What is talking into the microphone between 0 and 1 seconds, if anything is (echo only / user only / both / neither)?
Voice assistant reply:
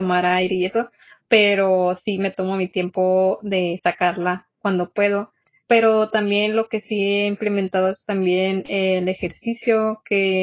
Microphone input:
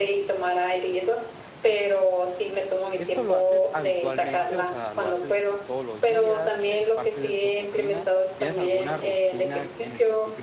echo only